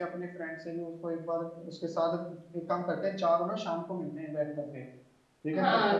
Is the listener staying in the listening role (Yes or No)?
No